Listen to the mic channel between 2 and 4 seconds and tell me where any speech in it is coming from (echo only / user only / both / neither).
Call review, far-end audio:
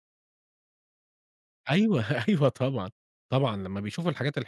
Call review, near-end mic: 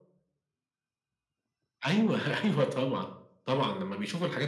echo only